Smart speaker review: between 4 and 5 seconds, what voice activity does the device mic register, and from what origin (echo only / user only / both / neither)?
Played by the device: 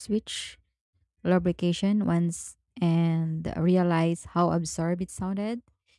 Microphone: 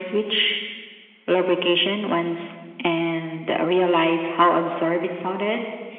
echo only